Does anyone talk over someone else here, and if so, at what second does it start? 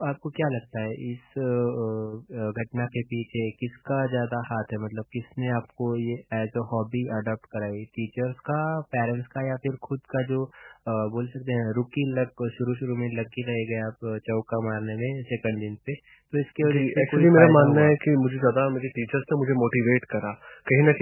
16.6 s

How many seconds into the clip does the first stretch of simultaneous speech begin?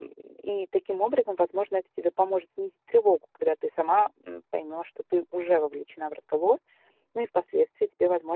none

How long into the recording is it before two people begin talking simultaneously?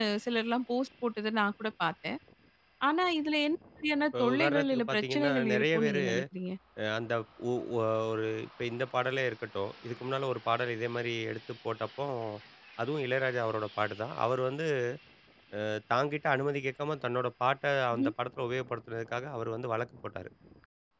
4.1 s

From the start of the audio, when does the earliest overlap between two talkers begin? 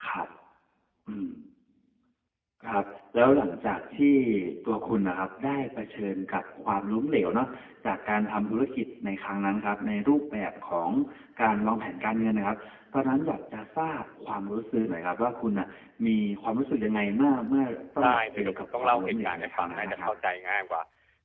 18.0 s

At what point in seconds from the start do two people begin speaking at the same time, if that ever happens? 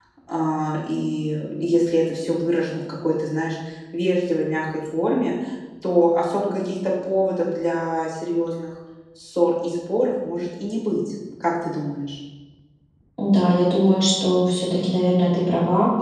none

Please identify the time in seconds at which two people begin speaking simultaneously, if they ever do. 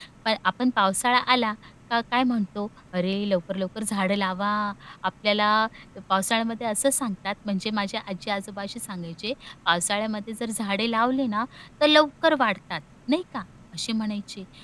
none

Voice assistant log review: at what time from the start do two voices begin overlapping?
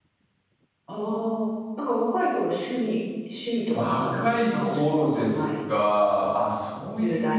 3.7 s

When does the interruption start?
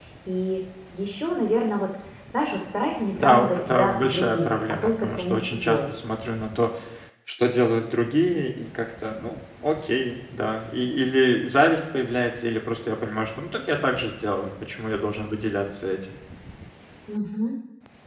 3.1 s

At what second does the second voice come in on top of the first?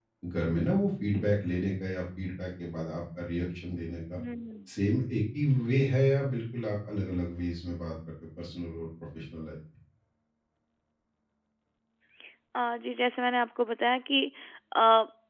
none

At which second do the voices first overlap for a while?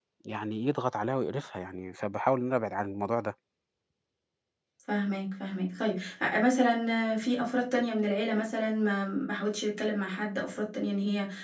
none

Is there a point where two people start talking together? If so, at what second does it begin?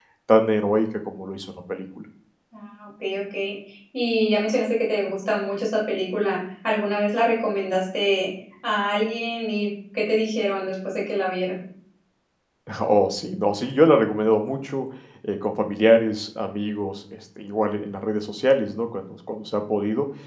none

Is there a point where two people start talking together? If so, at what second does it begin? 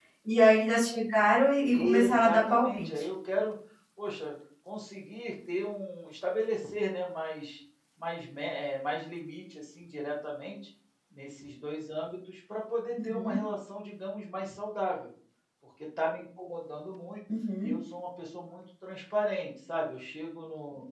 1.7 s

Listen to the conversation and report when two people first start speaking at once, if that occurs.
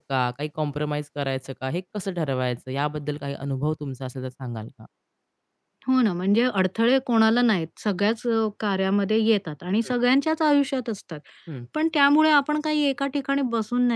none

